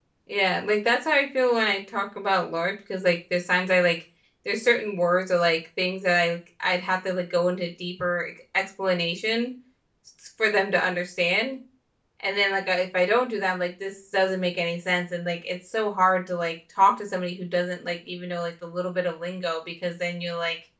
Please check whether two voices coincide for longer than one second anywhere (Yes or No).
No